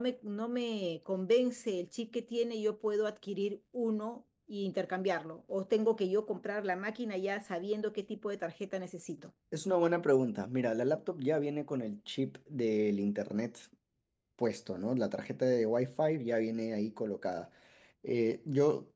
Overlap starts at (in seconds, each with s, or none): none